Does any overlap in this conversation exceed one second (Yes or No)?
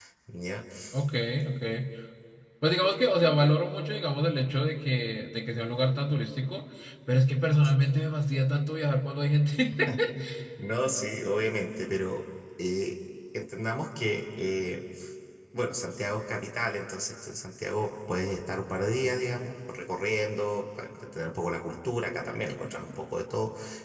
No